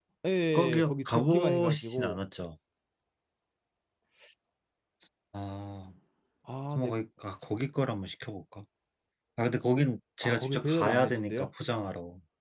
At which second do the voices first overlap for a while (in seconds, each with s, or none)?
0.8 s